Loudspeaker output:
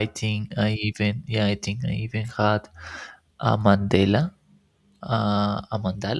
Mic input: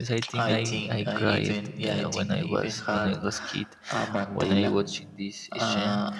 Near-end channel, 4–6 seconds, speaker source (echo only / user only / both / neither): both